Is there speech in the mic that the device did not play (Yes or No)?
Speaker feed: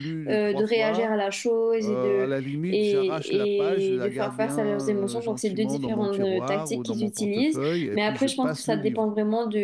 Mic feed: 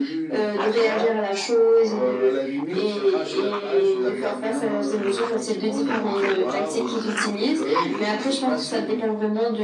No